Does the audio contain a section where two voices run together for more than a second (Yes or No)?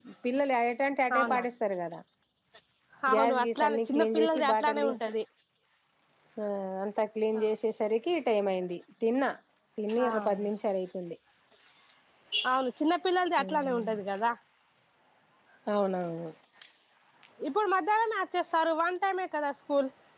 Yes